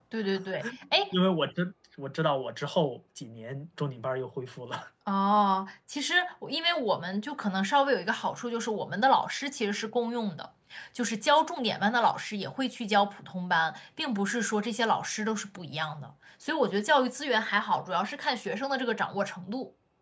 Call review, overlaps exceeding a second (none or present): none